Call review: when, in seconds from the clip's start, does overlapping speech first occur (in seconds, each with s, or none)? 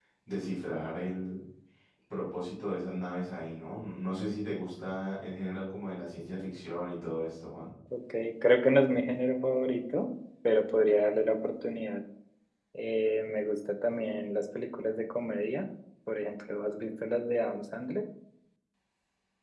none